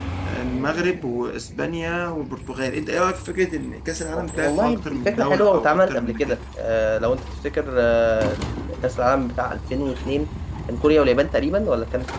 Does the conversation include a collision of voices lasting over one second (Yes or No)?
Yes